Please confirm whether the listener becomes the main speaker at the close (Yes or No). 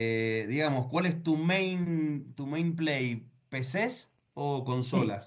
Yes